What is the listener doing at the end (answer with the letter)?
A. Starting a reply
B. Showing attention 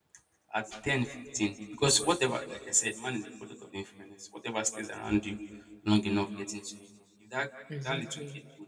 B